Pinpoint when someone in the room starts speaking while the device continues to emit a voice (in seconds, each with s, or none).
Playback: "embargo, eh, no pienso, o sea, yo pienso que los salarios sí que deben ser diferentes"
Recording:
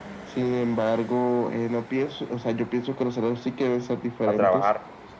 4.2 s